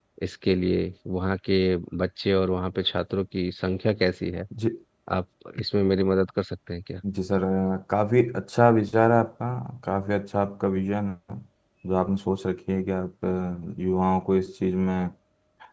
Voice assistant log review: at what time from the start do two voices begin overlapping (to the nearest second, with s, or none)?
none